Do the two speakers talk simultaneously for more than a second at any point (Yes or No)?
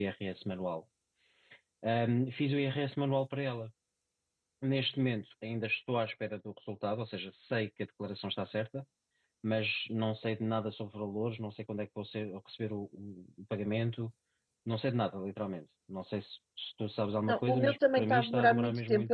Yes